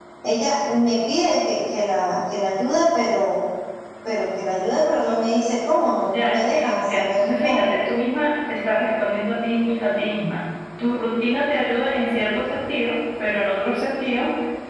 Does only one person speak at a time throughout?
No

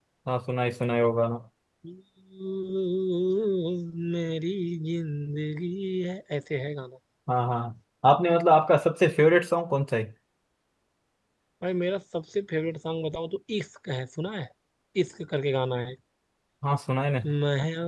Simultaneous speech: No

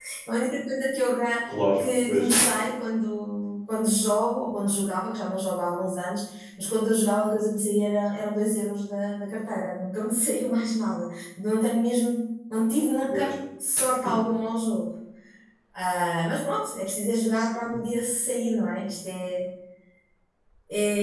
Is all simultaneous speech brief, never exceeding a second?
Yes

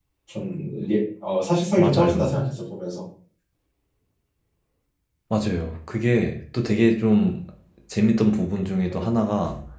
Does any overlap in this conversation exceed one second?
No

